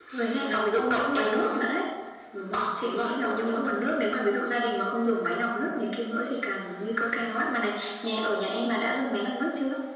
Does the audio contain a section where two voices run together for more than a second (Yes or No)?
Yes